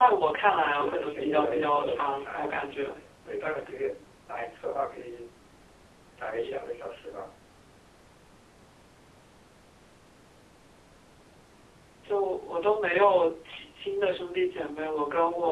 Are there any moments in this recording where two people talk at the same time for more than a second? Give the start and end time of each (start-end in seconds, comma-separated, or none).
0.5-2.9